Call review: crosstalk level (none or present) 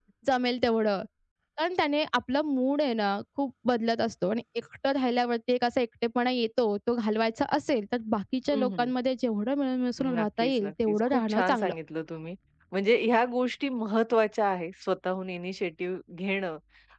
present